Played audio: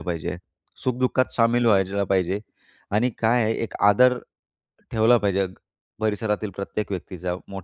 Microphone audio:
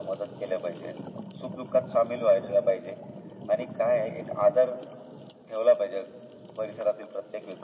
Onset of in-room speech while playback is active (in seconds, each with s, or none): none